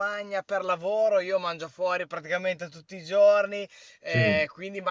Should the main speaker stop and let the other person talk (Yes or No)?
No